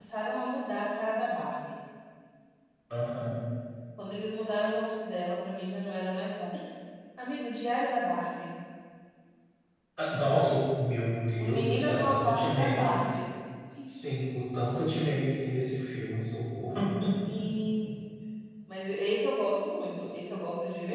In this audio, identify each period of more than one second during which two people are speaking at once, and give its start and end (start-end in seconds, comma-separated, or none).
11.4-13.0